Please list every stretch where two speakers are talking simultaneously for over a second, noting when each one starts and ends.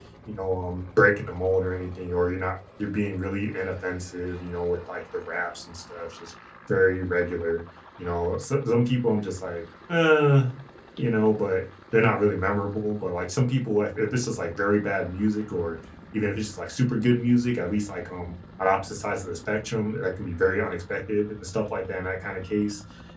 none

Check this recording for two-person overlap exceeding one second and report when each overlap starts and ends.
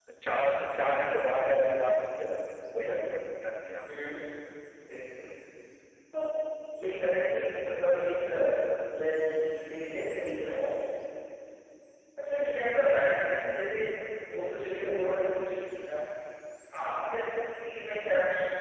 none

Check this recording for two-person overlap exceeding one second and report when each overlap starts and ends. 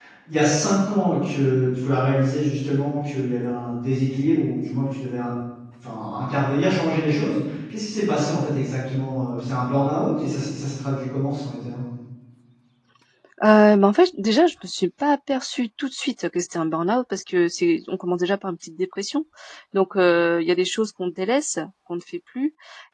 none

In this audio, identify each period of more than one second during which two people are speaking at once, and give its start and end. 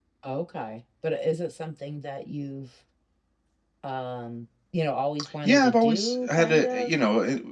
5.4-6.9

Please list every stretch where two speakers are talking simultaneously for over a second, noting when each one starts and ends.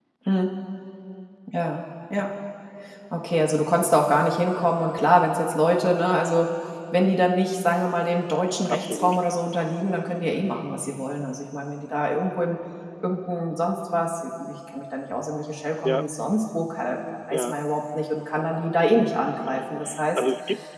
none

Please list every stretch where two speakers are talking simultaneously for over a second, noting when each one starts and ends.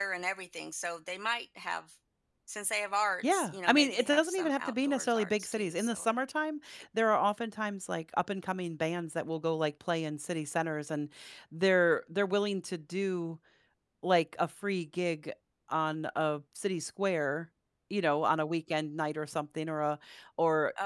3.3-6.0

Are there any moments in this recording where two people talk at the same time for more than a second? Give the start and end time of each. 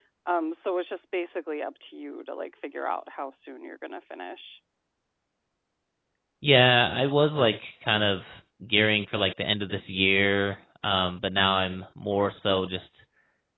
none

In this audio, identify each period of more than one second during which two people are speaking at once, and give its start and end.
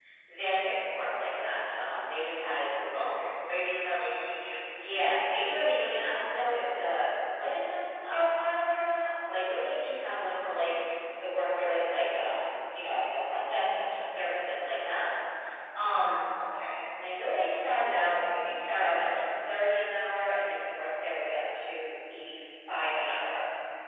none

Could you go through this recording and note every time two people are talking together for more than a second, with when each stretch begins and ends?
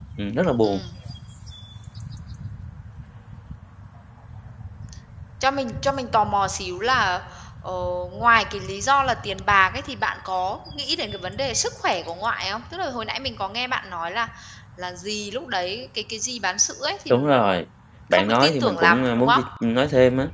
18.1-19.4

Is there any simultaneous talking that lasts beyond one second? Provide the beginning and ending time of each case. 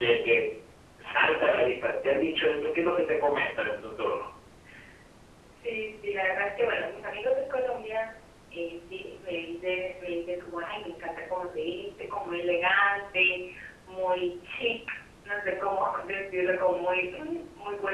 none

